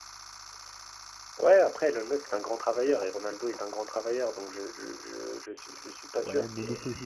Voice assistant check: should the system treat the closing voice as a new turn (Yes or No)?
Yes